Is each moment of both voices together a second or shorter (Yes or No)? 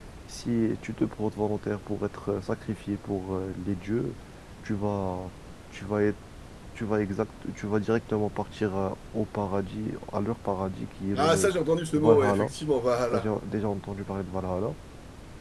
Yes